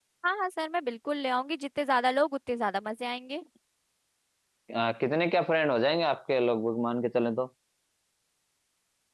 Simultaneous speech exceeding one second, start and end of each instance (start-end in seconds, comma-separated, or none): none